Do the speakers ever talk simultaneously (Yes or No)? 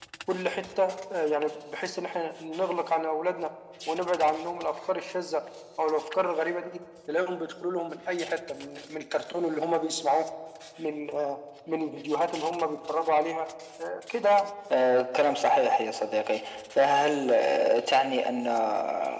No